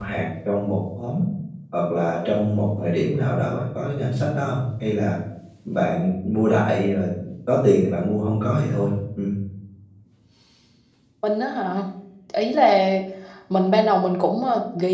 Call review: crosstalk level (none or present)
none